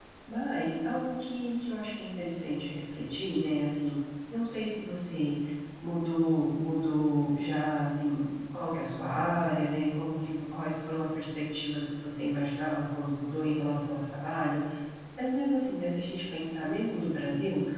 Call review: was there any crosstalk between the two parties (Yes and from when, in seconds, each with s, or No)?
No